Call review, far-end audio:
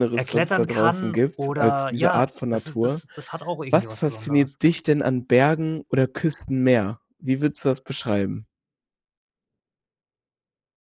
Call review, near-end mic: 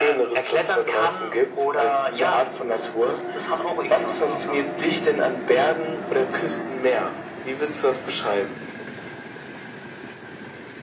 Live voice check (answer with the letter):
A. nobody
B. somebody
A